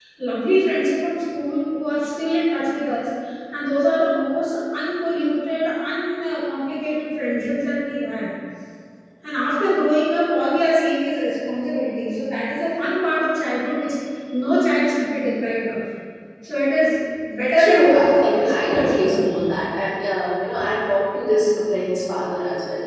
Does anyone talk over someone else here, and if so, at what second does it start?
17.5 s

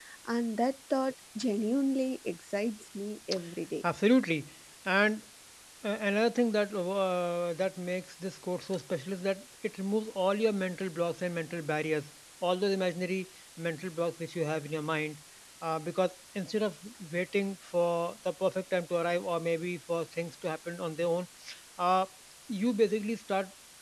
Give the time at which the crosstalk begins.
none

